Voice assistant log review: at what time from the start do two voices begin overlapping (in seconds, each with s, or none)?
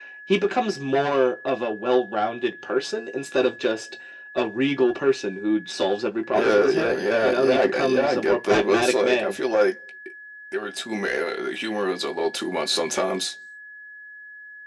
6.3 s